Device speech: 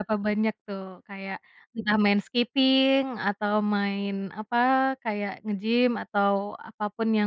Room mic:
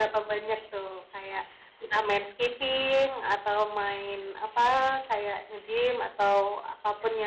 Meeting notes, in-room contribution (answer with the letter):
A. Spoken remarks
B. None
B